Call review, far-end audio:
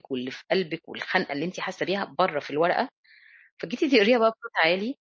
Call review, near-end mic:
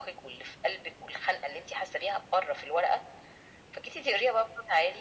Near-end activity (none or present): none